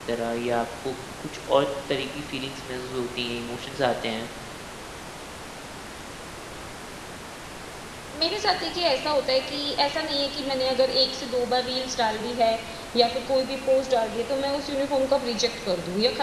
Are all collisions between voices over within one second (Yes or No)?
Yes